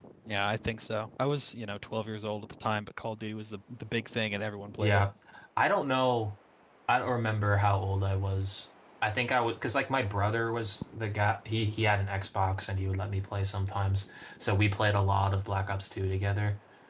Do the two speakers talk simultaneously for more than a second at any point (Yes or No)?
No